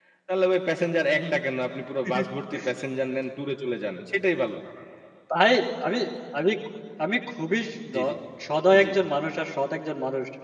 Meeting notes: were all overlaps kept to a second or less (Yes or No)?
Yes